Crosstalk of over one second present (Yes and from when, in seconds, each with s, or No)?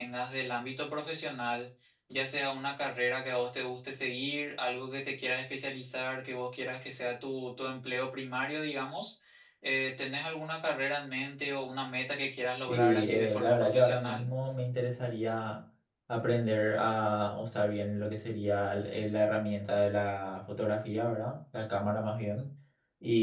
Yes, from 12.5 s